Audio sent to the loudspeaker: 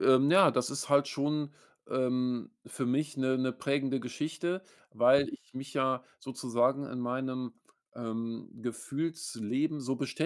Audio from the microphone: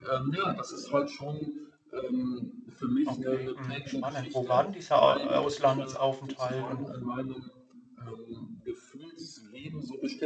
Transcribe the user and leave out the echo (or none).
Okay, mhm, spannend. Wo war denn dieser, äh, Auslandsaufenthalt? Und